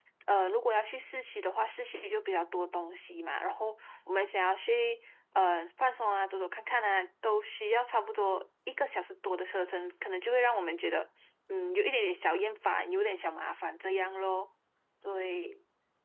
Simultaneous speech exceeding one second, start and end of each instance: none

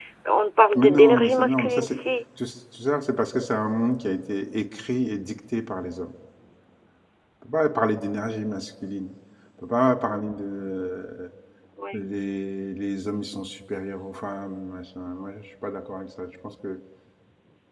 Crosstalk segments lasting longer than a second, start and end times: 0.8-2.0

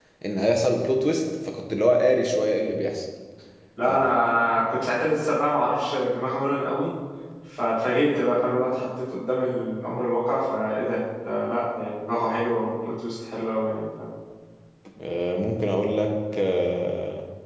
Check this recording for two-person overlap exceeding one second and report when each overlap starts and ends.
none

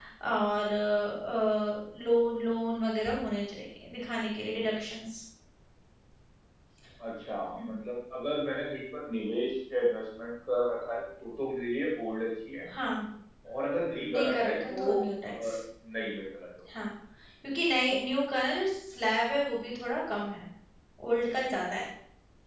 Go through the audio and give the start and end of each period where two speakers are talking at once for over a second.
14.0-15.6

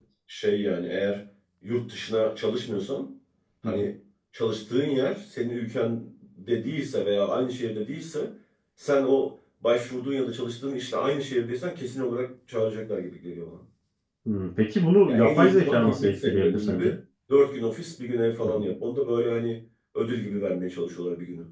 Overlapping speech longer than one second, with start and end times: 15.1-16.9

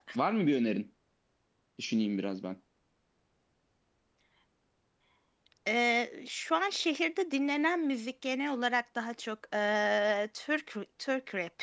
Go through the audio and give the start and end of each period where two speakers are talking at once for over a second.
none

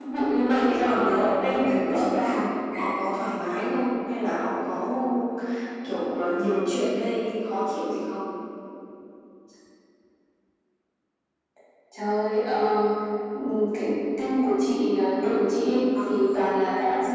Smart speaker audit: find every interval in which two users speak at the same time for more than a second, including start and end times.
0.7-2.5

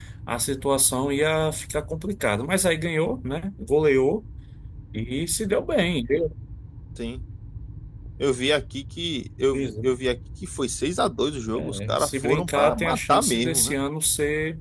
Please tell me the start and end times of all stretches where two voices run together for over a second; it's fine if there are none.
11.5-13.8

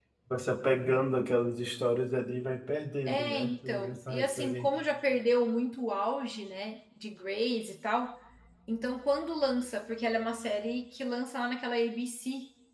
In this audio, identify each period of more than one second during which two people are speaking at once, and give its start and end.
3.1-4.7

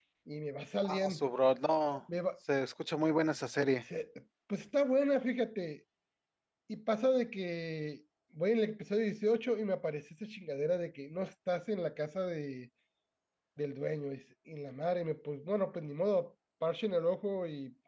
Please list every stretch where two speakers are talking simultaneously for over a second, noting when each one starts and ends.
none

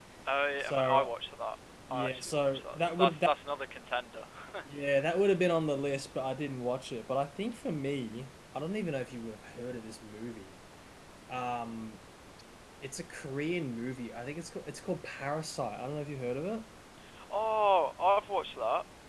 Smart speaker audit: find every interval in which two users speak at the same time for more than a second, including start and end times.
1.9-3.3

